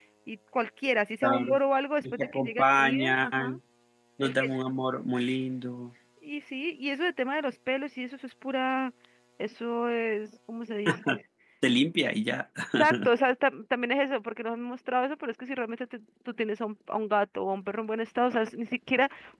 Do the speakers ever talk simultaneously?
Yes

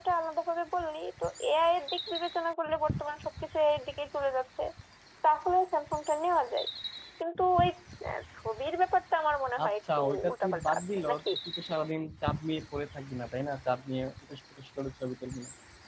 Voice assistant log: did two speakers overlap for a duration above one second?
Yes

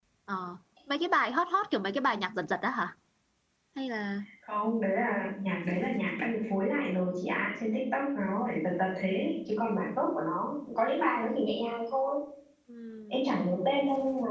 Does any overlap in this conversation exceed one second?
No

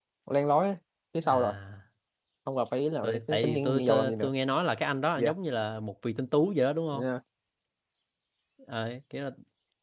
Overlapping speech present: Yes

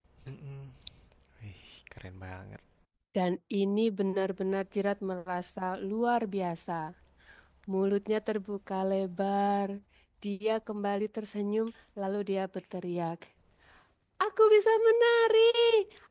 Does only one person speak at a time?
Yes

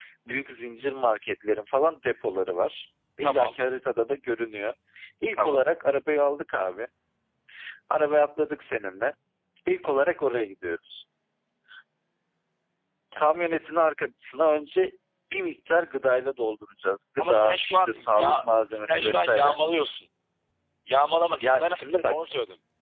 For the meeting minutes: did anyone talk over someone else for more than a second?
Yes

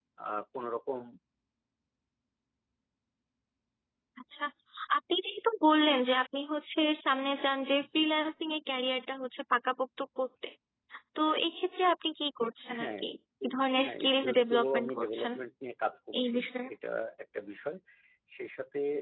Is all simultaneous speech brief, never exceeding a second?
No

